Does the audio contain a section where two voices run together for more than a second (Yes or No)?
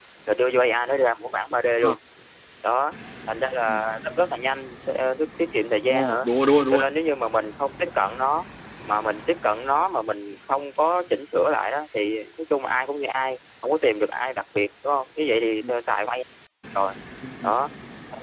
No